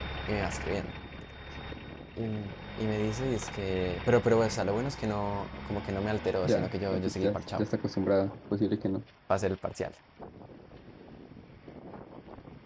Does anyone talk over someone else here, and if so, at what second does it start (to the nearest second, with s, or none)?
6 s